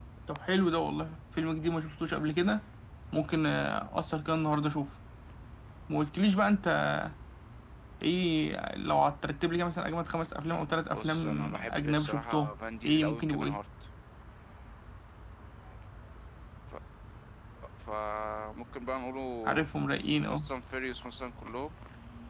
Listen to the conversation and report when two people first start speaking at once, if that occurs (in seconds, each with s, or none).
10.9 s